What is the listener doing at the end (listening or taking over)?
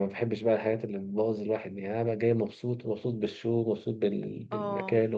listening